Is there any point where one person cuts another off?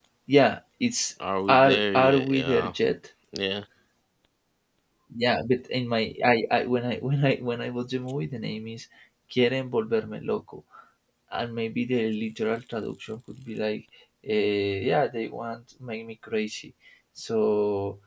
Yes, from 1.5 s

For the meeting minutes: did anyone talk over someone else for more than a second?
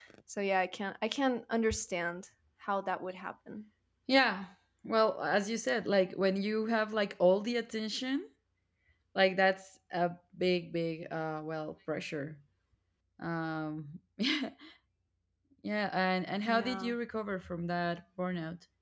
No

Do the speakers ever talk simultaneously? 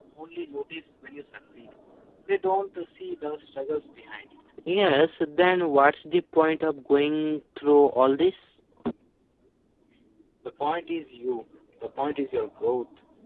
No

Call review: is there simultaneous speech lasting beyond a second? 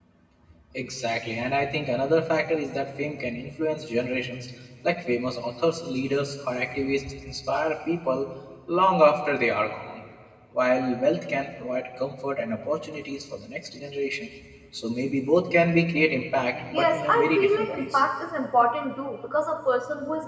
Yes, from 16.7 s

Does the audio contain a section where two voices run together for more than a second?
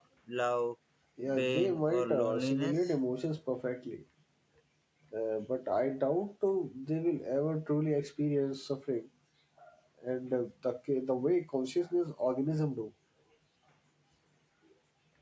Yes, from 1.4 s

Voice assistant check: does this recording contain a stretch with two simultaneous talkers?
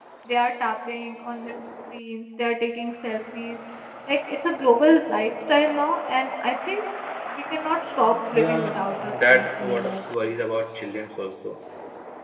Yes, from 8.3 s

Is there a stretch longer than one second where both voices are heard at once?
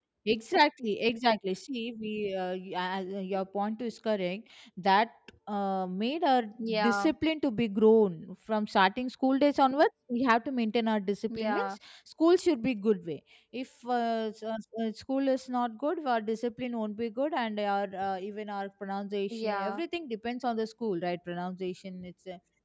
No

